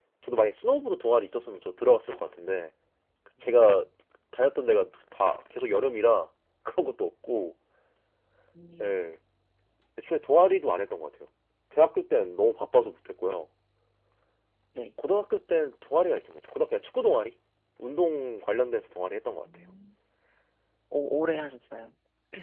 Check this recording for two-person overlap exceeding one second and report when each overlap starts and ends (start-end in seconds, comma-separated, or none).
none